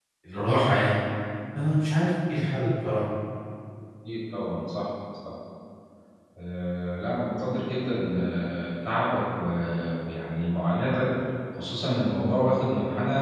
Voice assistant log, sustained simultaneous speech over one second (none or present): none